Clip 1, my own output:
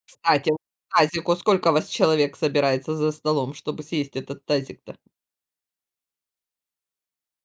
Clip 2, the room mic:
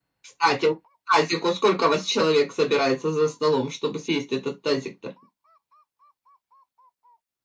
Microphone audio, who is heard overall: echo only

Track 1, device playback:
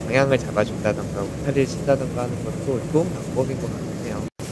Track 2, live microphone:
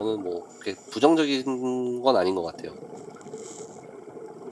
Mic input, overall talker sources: user only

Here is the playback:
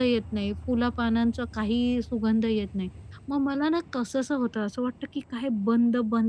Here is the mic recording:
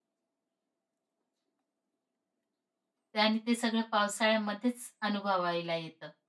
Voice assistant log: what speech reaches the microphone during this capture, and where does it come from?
user only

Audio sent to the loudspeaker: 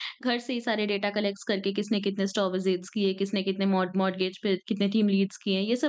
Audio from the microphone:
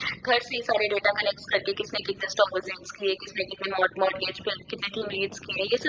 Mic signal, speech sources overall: echo only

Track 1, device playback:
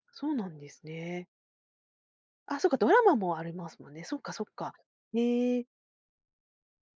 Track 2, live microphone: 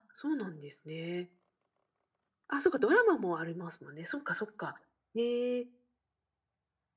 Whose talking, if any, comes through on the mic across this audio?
echo only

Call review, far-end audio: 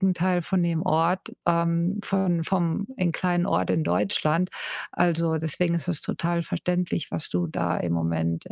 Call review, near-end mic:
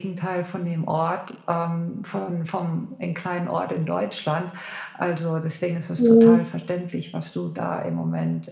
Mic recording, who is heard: both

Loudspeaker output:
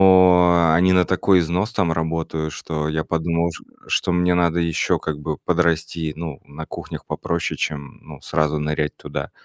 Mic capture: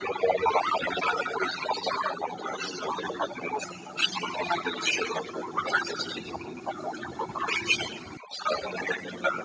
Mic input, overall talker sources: echo only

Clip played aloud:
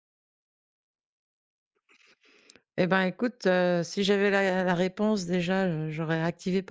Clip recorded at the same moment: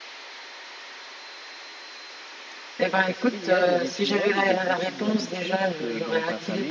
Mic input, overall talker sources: both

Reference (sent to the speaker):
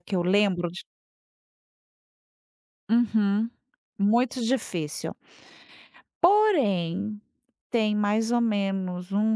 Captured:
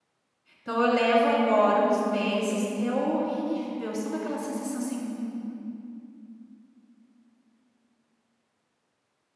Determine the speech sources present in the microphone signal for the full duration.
user only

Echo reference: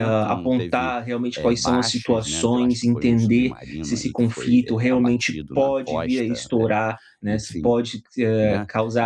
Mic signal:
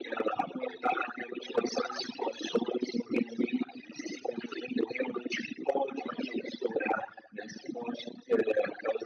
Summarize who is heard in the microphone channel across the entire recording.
echo only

